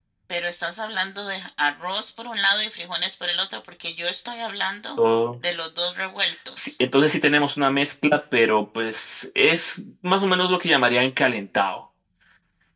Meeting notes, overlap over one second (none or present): none